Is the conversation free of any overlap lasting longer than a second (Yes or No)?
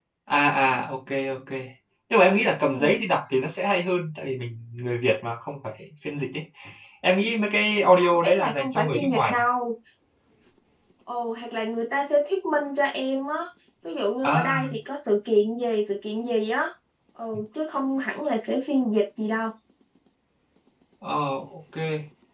No